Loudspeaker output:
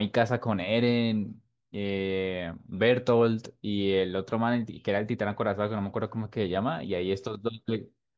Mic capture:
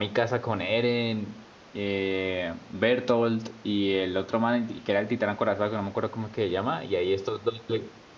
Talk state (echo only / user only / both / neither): echo only